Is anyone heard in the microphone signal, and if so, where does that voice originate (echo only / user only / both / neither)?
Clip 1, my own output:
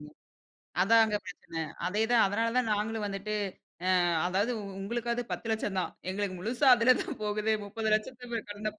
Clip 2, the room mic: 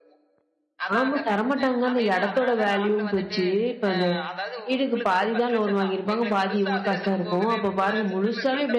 both